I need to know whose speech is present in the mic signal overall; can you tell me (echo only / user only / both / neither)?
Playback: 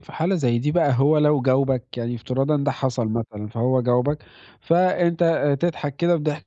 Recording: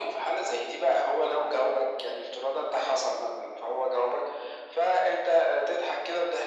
echo only